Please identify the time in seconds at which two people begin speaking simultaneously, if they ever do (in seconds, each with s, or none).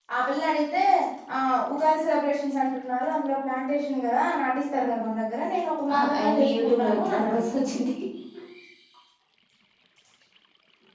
6.2 s